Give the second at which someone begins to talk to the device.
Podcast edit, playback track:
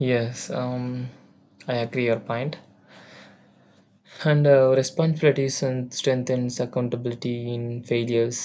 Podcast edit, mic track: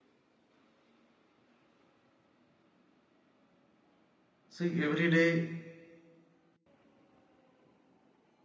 4.5 s

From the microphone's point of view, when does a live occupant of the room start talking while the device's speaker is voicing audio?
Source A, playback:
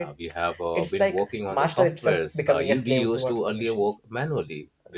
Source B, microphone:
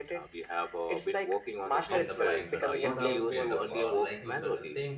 1.9 s

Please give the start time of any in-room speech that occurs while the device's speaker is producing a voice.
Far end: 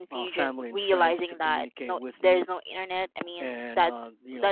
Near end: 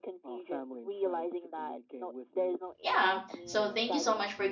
2.8 s

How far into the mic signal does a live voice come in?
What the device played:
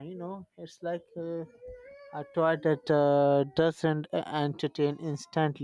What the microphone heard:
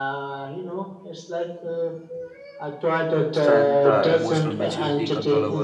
3.3 s

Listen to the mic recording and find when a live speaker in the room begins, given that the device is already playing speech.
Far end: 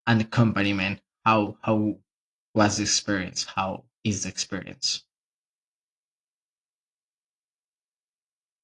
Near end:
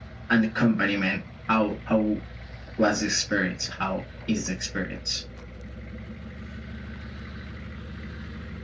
none

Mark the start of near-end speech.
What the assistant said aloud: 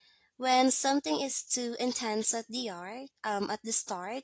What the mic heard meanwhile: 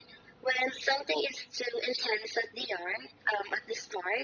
none

